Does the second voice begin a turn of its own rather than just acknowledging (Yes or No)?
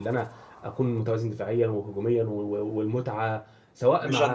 Yes